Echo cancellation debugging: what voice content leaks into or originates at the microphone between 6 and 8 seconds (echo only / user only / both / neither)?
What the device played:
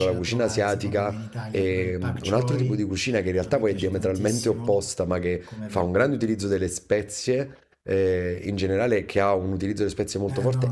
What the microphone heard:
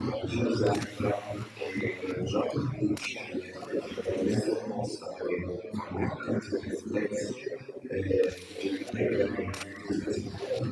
echo only